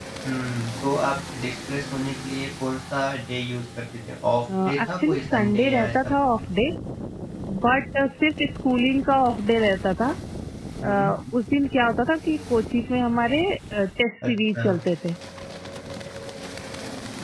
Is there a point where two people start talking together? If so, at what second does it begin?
4.6 s

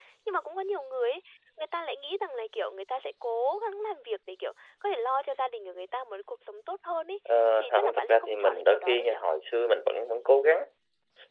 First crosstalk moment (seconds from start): 7.6 s

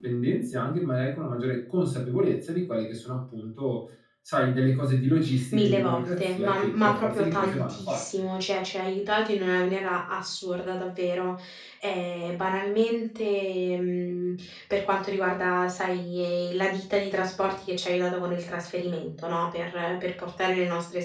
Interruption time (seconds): 5.5 s

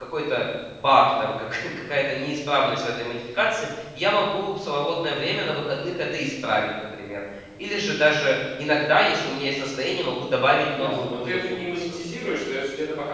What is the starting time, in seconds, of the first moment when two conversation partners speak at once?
10.7 s

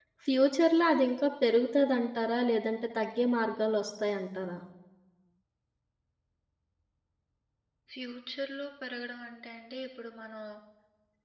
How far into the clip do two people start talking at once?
none

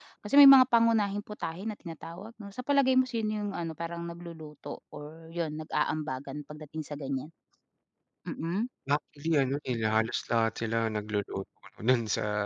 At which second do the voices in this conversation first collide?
none

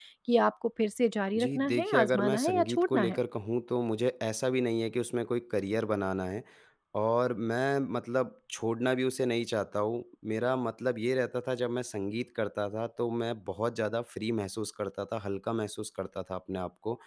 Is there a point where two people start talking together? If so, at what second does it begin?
1.4 s

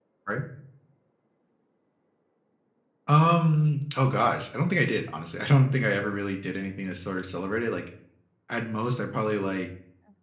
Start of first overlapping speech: none

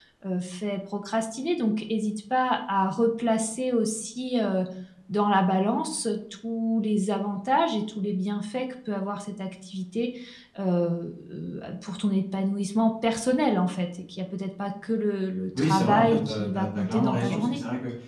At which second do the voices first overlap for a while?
15.5 s

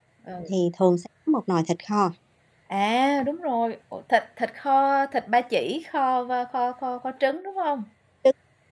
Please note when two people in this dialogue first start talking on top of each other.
none

